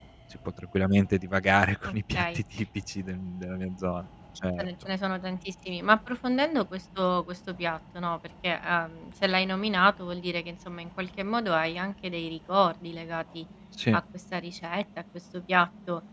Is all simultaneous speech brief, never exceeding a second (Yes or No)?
Yes